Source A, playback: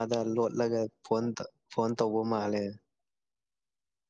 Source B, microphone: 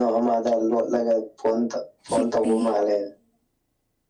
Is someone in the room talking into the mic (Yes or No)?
Yes